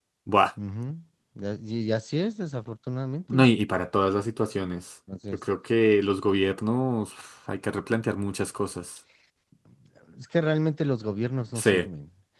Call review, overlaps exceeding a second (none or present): none